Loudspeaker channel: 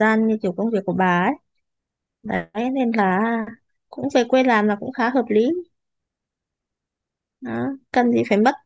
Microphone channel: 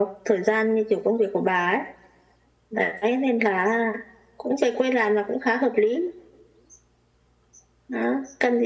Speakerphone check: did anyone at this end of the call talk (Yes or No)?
No